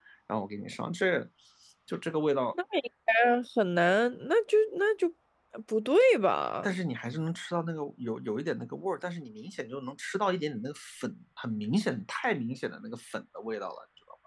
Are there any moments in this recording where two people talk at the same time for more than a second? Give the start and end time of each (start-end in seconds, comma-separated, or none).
none